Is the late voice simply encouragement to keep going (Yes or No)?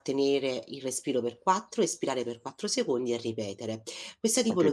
No